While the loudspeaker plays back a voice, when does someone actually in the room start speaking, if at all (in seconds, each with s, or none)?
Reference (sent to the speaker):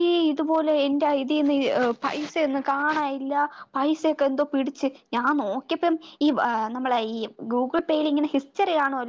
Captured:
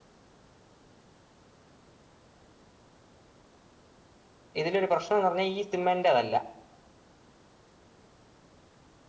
4.6 s